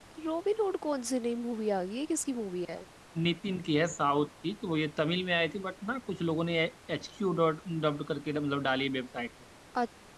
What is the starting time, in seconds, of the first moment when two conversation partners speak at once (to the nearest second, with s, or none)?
none